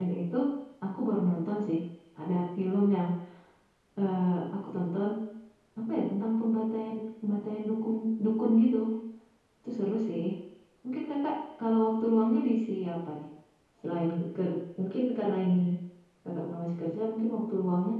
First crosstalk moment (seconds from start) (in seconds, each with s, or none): none